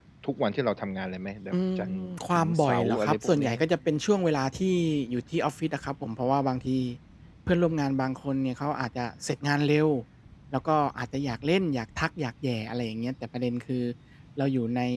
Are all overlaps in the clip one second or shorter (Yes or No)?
No